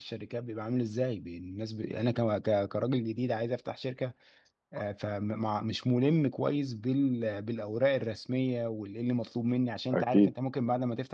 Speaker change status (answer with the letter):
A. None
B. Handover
A